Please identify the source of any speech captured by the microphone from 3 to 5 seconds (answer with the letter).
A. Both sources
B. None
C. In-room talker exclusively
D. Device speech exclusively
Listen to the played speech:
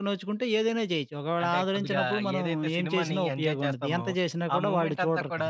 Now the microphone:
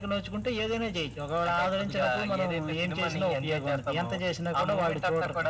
D